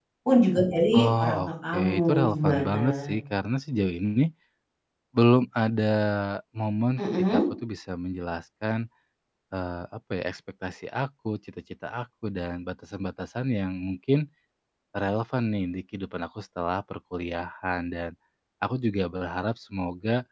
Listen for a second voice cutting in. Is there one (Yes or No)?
Yes